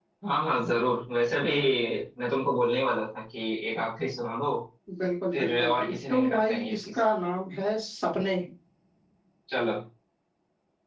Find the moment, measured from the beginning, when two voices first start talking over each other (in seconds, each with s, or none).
5.3 s